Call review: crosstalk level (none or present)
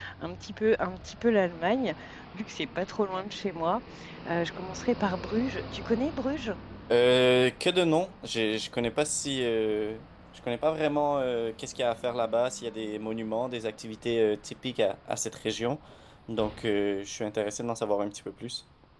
none